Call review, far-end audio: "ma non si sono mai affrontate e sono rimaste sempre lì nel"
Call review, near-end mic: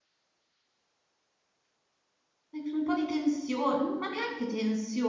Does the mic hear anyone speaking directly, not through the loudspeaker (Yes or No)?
Yes